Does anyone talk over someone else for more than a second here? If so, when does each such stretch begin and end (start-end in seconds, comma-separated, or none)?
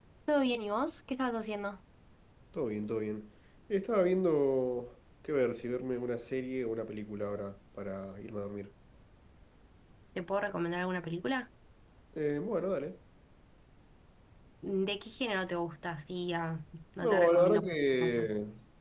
17.0-18.3